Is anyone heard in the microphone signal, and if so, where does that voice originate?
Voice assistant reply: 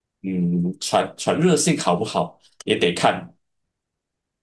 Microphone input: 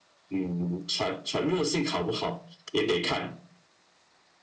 echo only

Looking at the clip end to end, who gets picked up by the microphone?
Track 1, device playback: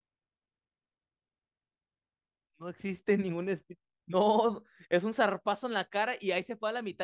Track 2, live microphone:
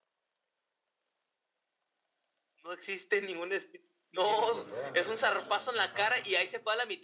both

